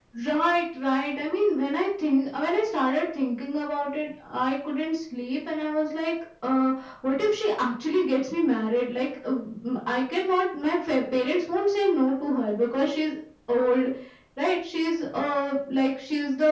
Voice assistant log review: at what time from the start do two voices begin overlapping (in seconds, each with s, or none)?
none